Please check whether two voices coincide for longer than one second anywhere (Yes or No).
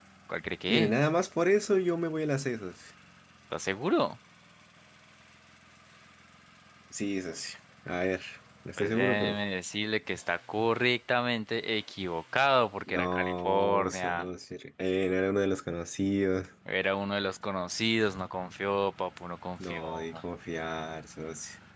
Yes